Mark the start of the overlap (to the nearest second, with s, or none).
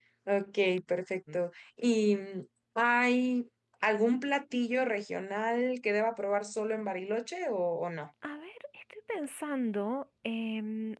none